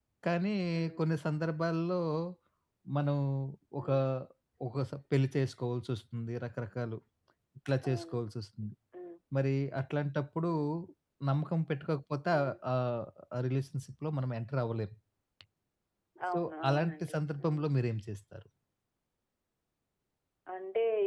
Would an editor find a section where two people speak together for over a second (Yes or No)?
Yes